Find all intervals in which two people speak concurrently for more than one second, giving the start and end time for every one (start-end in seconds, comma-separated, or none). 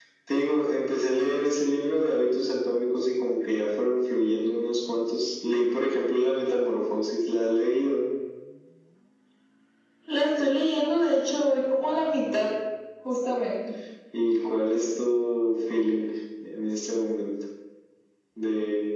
none